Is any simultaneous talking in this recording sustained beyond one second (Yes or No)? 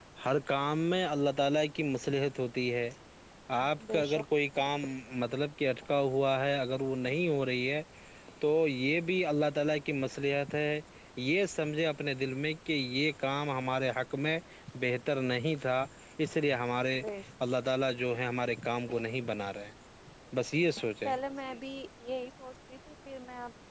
No